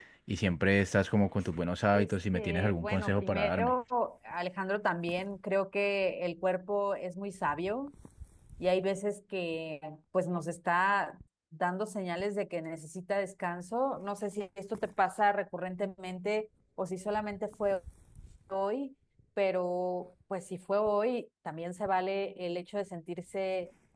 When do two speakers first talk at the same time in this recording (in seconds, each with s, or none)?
1.9 s